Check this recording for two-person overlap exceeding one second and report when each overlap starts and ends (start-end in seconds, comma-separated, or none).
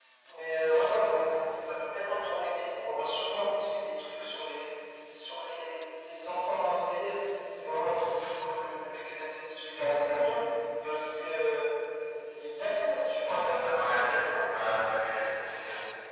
13.3-14.5